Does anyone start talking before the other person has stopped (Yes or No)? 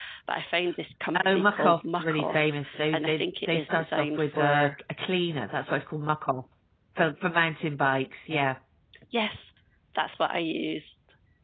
Yes